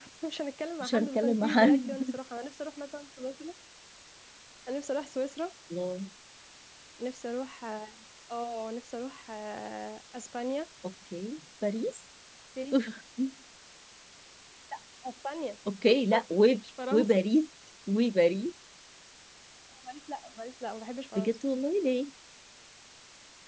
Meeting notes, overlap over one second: present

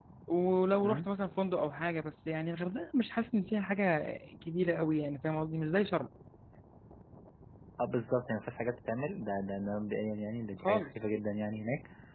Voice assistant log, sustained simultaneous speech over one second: none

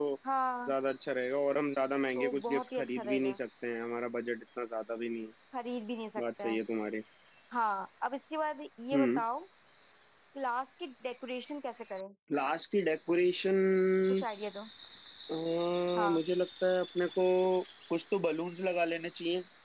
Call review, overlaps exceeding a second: present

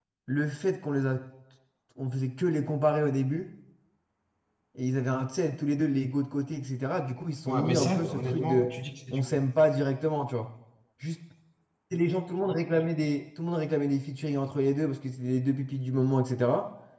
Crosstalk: present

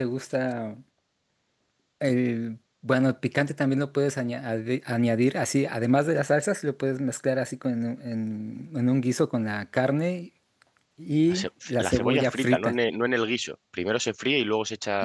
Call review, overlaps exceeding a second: present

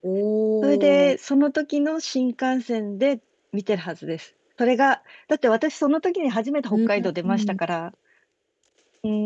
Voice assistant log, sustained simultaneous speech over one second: none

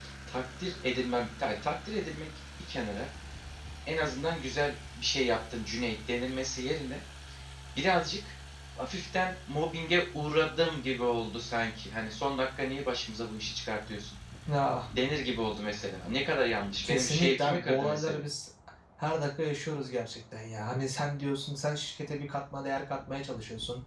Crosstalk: present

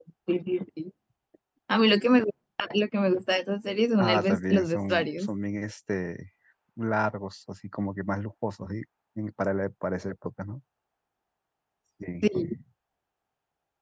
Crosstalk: present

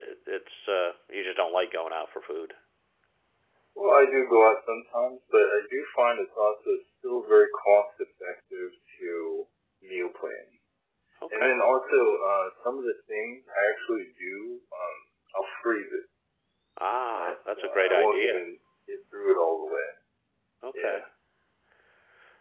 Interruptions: present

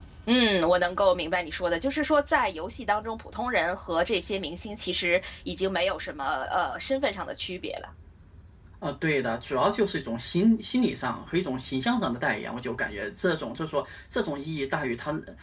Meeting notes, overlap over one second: none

